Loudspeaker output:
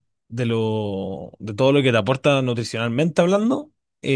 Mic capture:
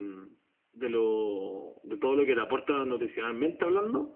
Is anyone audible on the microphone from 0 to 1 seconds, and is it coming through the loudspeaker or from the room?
echo only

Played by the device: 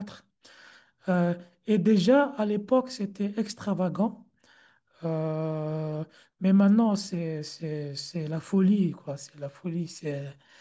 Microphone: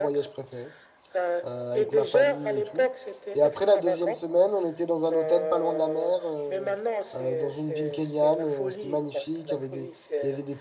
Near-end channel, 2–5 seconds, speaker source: both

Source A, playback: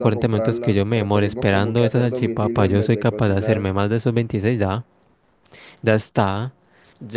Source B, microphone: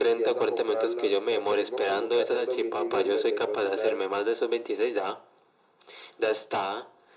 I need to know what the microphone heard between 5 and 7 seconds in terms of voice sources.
echo only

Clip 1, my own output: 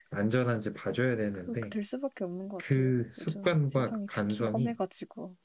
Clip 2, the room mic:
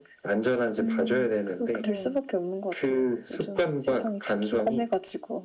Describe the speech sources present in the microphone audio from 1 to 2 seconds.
both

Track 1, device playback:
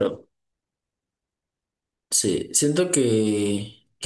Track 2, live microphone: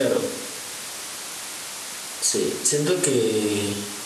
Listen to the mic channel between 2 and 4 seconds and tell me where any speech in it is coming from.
echo only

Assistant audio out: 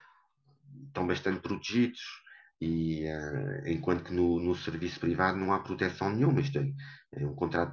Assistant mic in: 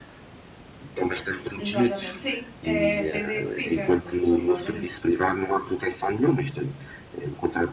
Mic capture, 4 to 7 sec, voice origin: both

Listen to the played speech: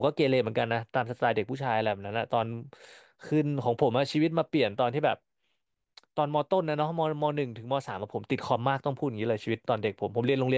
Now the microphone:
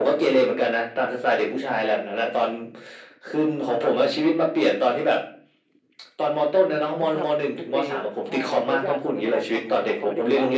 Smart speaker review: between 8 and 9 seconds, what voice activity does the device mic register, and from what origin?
both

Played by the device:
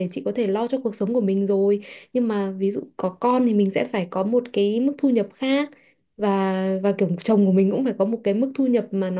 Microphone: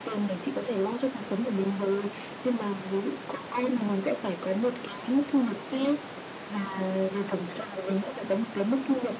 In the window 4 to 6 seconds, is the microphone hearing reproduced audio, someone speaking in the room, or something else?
echo only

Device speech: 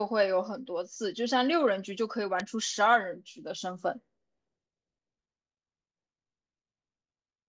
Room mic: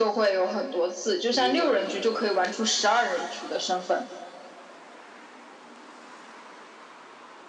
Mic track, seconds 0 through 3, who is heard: both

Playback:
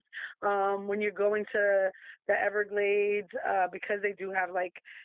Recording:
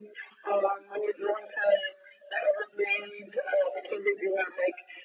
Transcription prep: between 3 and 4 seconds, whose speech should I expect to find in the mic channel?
echo only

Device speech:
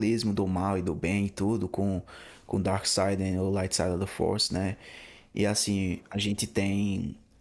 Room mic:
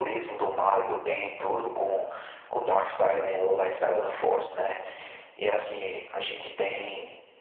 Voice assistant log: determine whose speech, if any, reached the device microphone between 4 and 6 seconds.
echo only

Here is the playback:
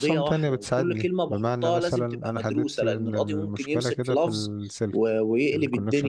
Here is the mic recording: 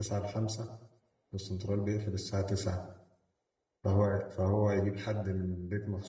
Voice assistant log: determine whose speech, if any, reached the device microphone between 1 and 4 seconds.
user only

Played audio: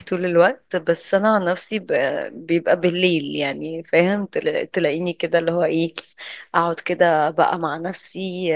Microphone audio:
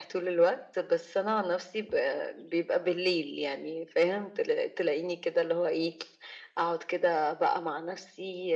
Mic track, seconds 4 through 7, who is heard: echo only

